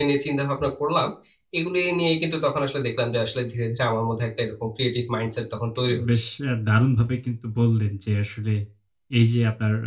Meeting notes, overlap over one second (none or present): none